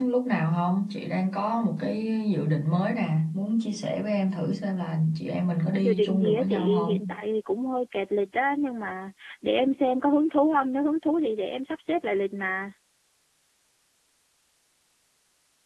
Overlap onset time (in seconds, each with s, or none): 5.8 s